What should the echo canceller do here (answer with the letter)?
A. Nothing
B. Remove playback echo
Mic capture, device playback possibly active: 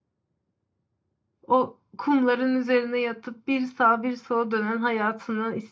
A